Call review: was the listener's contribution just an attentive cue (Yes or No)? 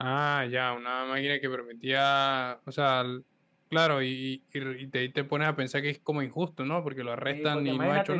No